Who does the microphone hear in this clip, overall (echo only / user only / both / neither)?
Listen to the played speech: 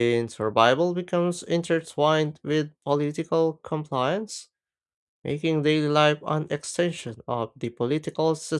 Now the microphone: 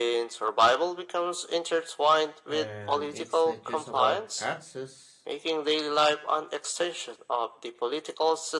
both